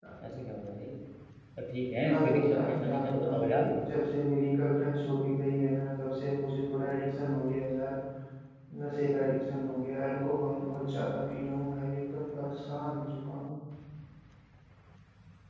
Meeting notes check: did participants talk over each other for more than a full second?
Yes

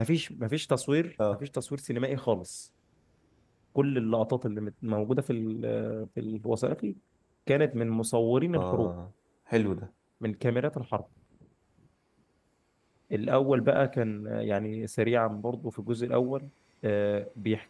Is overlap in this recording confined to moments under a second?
Yes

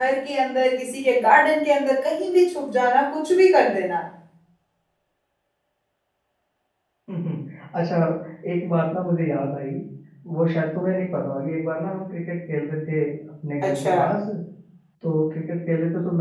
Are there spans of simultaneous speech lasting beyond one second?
No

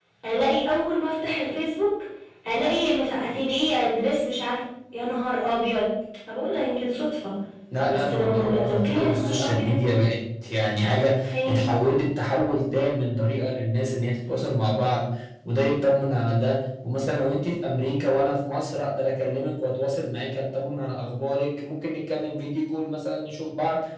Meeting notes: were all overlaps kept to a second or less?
No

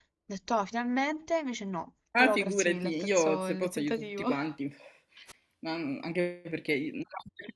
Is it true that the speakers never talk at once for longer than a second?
No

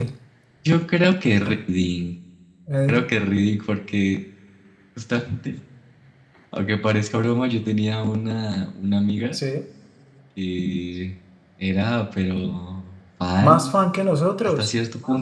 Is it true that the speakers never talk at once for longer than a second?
Yes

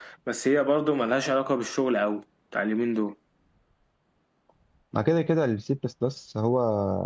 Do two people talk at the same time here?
No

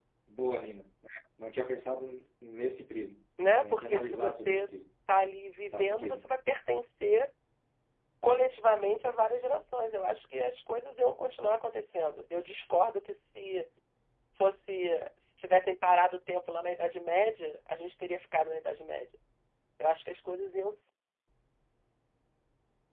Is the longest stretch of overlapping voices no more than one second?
No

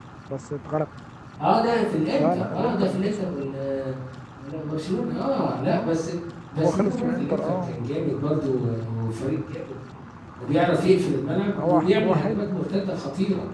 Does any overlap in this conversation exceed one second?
Yes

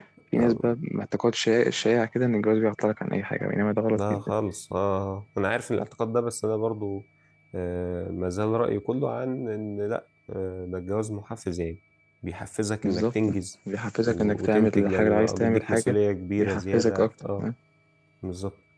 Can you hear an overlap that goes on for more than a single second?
Yes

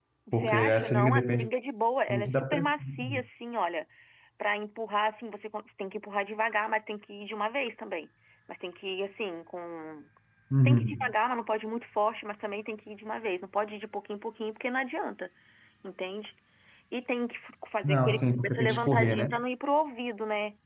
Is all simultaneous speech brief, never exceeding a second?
No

